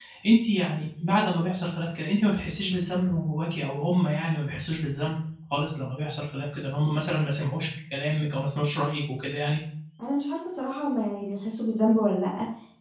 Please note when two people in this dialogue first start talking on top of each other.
none

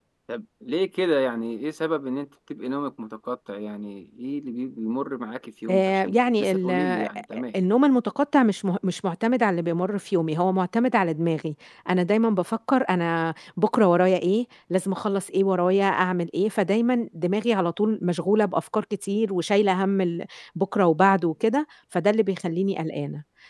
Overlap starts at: 5.7 s

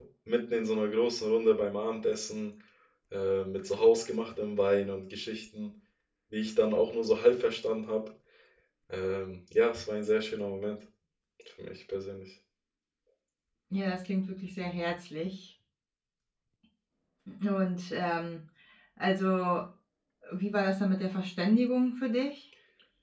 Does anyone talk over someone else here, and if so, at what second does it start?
none

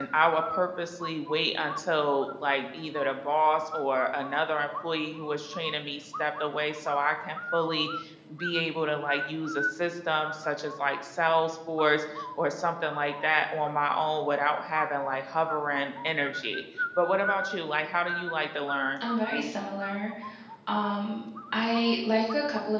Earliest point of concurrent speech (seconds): none

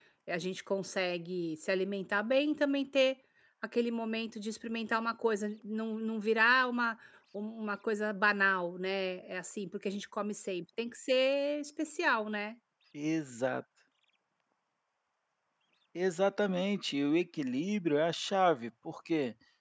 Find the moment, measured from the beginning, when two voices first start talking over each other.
none

